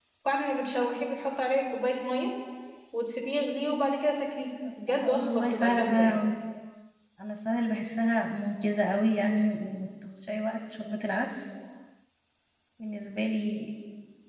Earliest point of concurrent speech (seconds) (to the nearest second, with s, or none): 5 s